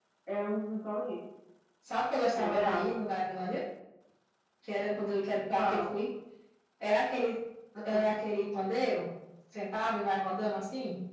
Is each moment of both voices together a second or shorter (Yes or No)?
Yes